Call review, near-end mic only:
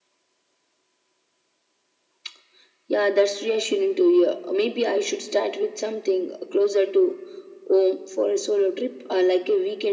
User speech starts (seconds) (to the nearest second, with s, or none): none